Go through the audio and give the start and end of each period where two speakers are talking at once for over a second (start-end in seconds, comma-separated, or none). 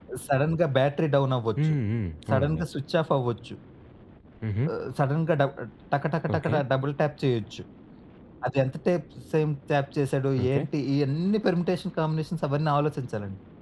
none